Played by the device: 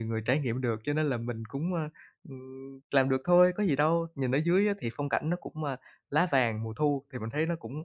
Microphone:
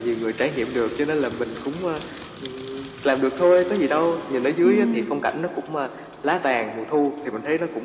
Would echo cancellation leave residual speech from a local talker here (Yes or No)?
Yes